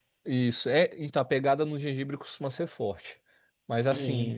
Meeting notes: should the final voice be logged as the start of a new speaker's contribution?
No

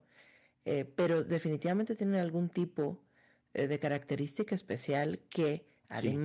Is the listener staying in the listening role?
Yes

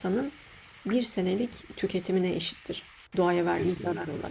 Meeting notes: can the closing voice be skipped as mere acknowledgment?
No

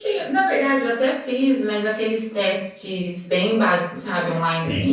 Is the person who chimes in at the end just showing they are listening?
Yes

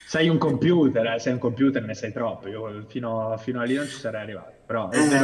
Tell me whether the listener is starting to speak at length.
Yes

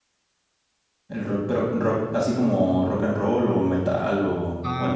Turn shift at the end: Yes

